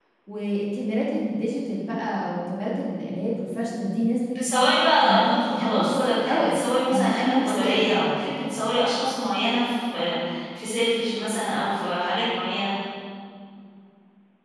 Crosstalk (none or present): present